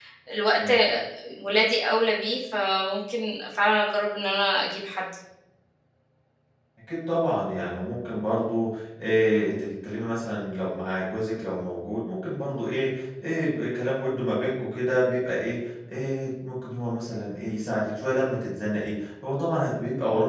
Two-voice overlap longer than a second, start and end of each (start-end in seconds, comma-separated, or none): none